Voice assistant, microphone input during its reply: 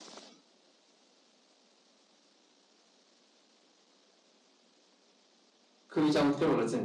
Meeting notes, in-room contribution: present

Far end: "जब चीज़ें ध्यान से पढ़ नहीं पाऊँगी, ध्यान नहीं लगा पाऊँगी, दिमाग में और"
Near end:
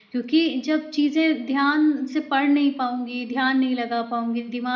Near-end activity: none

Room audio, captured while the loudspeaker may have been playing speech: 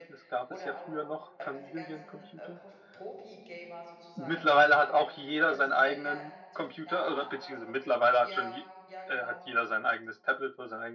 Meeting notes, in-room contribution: present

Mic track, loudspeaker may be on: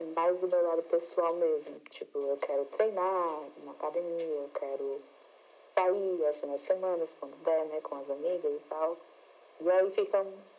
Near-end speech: none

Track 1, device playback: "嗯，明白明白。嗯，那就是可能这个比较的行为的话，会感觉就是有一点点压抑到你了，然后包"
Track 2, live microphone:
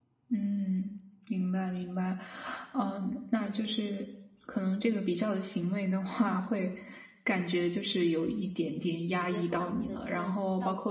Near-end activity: present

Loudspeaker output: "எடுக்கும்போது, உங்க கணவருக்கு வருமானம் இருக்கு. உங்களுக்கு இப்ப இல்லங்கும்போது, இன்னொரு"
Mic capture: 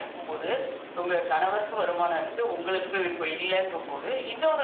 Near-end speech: none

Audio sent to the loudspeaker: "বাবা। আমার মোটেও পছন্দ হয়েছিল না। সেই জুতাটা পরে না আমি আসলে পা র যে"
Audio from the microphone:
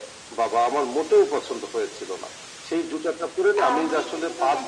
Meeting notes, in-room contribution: present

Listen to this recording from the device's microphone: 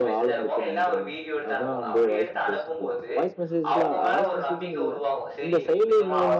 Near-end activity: present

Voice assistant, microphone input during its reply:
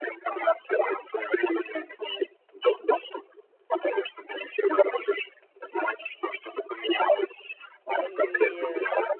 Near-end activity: present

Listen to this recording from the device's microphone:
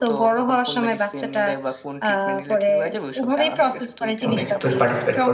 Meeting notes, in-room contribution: present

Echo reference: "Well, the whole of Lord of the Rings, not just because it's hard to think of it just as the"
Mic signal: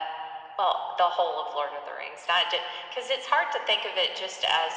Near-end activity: none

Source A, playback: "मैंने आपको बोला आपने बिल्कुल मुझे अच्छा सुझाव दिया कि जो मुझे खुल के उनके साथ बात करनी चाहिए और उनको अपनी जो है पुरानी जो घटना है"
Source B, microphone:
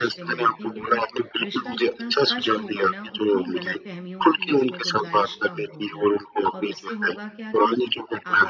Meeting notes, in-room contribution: present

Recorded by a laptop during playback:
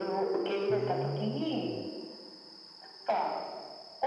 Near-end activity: present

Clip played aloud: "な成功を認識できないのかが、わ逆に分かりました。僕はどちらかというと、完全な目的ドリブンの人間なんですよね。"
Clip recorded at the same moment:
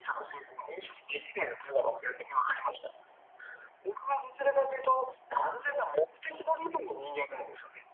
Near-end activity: none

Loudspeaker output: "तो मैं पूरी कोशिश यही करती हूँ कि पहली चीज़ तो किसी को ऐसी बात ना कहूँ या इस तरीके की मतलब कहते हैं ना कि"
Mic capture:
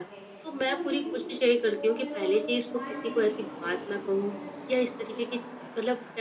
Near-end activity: present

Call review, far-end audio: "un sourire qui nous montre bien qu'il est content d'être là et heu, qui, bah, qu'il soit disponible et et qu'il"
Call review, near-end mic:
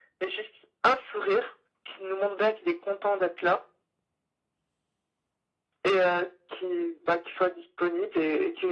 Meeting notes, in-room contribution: none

